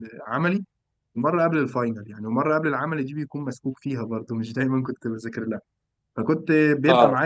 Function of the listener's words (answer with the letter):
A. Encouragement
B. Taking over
A